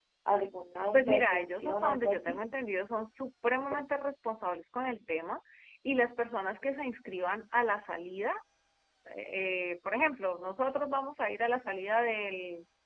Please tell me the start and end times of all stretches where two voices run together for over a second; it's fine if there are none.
0.9-2.4

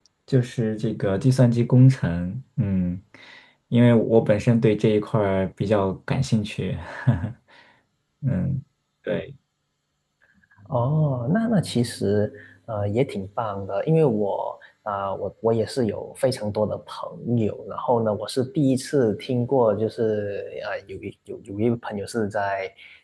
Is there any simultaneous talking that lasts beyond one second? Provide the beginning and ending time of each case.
none

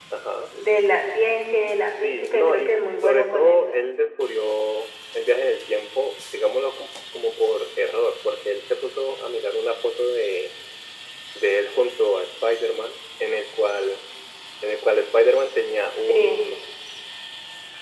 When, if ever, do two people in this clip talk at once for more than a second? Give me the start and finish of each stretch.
1.9-3.8

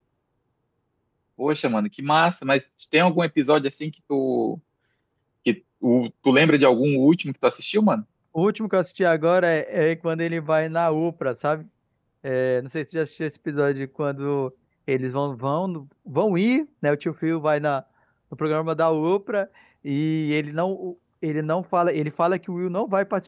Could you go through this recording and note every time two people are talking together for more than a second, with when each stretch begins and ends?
none

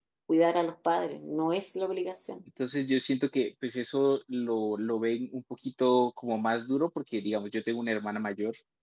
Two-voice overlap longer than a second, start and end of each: none

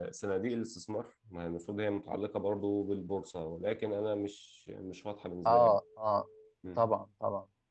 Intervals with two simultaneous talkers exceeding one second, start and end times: none

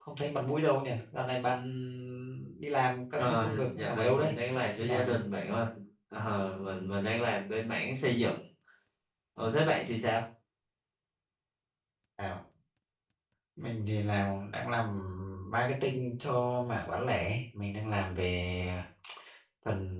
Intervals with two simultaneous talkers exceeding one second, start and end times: 3.2-4.4

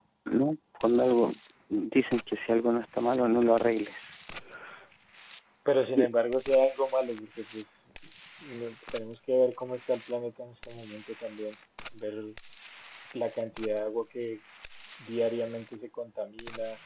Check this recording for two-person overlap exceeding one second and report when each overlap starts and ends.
none

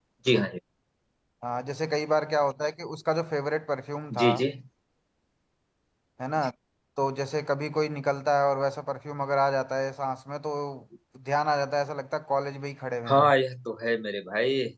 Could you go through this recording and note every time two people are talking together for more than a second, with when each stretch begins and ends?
none

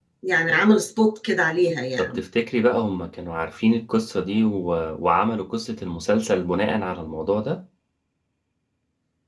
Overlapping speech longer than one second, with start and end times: none

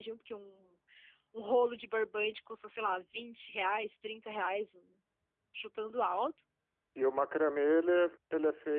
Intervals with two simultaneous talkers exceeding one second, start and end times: none

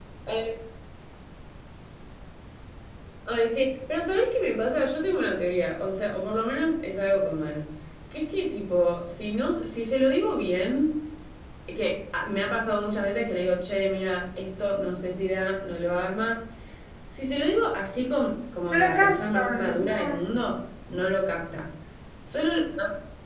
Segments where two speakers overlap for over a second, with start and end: 18.7-20.2

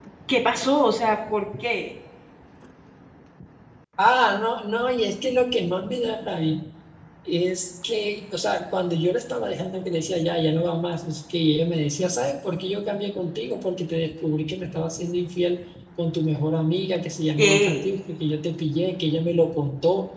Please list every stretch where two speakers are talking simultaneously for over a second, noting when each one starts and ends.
none

